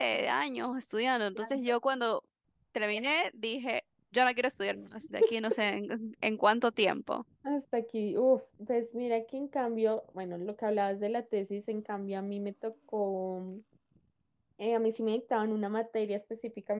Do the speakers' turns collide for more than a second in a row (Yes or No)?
No